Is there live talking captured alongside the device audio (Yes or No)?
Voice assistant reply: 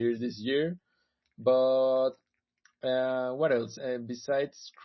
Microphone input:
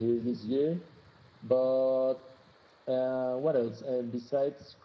No